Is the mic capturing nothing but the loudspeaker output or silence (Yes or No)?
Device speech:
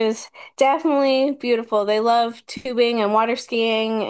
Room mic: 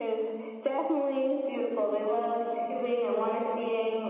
Yes